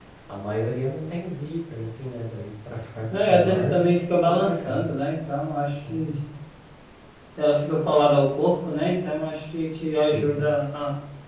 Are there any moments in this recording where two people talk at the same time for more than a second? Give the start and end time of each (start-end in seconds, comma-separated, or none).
3.1-4.8